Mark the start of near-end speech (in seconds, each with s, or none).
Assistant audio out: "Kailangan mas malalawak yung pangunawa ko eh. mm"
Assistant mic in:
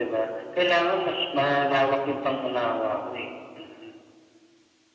none